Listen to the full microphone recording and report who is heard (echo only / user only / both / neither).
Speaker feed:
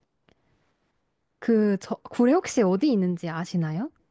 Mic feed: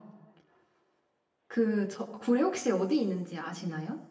echo only